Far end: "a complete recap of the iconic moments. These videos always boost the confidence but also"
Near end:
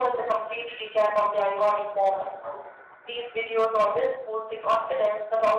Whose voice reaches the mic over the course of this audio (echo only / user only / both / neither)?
echo only